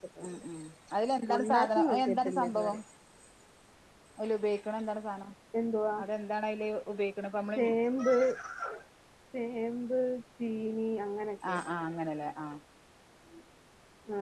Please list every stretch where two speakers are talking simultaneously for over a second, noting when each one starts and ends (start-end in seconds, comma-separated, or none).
1.3-2.8